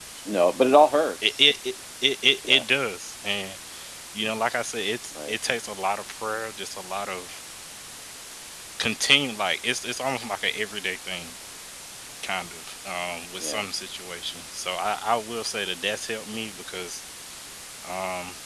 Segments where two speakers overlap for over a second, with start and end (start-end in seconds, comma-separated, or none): none